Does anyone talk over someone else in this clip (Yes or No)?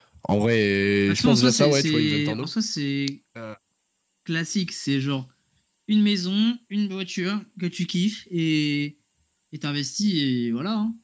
Yes